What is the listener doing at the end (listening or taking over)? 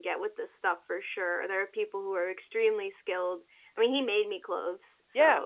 taking over